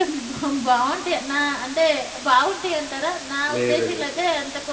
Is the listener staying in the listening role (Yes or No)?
Yes